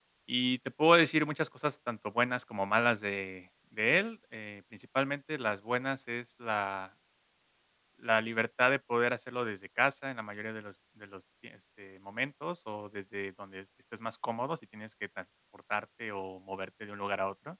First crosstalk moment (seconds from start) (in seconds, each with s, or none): none